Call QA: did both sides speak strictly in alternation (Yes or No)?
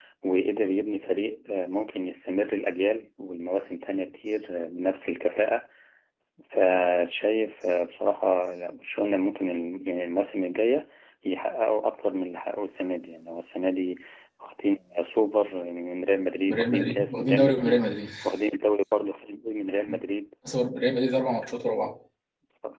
No